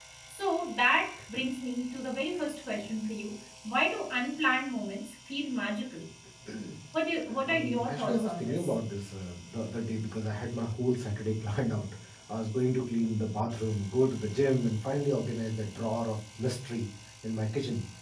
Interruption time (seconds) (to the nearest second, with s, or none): 7 s